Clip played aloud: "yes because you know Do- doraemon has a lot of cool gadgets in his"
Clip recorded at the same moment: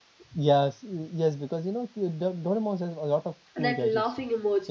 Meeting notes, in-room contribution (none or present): present